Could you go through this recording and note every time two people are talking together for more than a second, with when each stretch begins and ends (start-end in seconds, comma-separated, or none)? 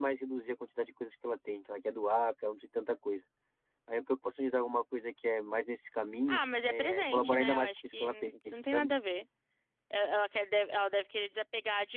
6.3-8.9